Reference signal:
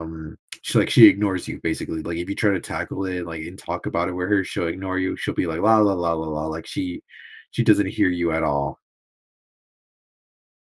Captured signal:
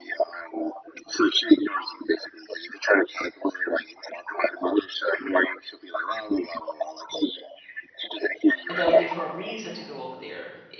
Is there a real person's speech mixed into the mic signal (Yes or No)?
Yes